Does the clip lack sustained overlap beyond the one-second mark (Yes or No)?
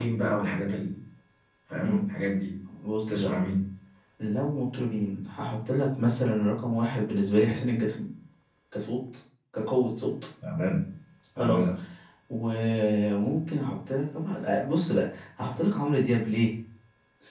Yes